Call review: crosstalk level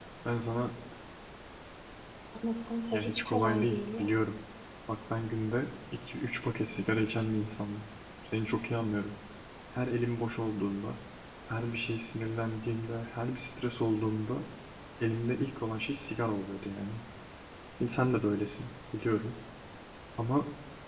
present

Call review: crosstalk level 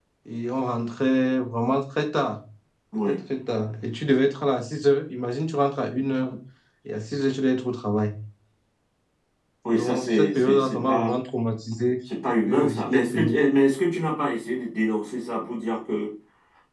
present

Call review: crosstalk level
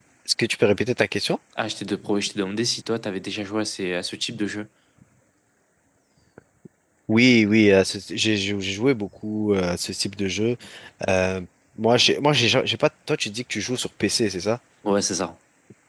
none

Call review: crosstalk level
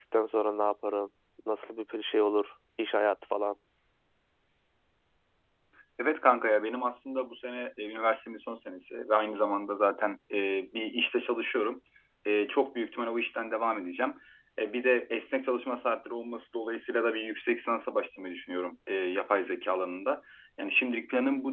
none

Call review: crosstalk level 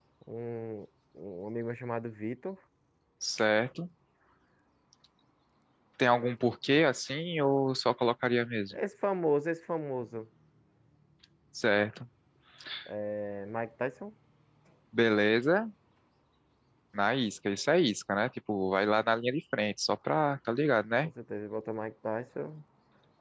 none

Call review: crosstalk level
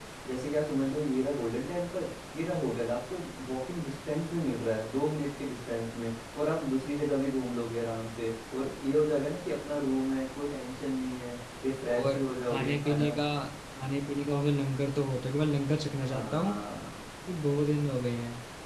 present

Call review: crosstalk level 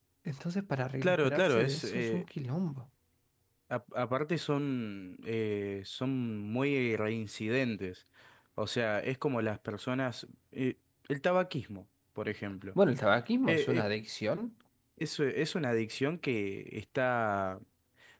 present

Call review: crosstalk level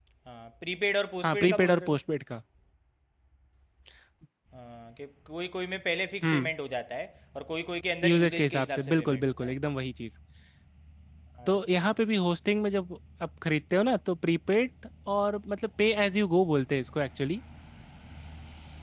present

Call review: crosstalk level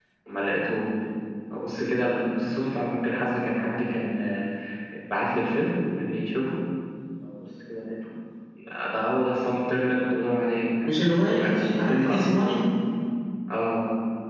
present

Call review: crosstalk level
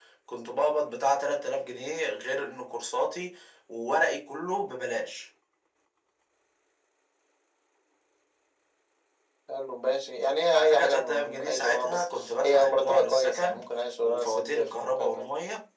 present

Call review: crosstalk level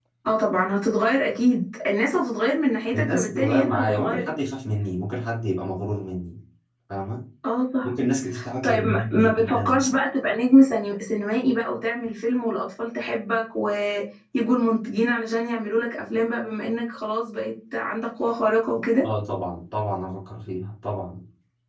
present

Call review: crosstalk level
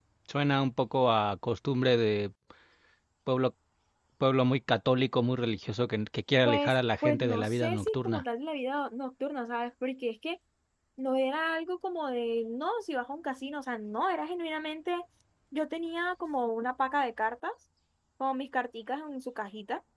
present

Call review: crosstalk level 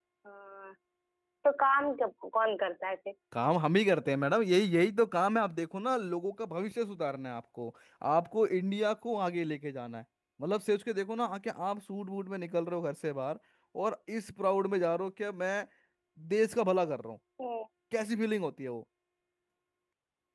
none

